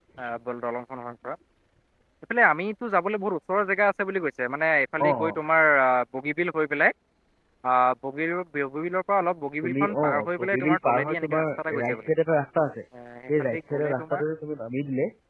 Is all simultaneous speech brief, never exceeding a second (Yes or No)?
No